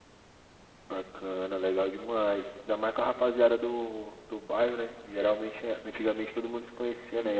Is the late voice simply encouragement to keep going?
Yes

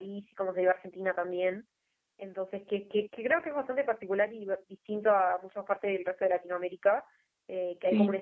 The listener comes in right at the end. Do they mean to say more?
No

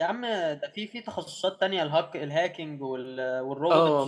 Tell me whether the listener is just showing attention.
No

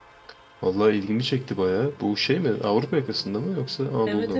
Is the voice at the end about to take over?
Yes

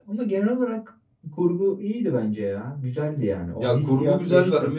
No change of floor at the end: No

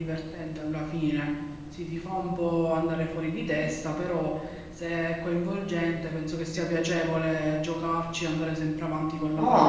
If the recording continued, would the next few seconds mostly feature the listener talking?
Yes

